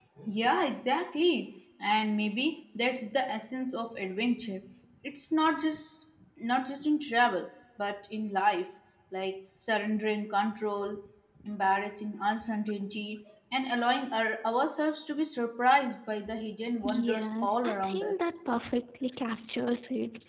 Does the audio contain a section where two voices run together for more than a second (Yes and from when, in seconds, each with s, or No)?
Yes, from 16.8 s